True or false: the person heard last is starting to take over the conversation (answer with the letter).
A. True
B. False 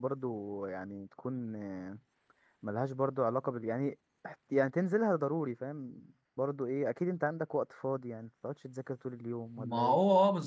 A